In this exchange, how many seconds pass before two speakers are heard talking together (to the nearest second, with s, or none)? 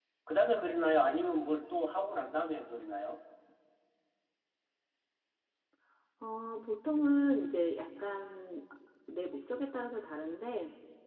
none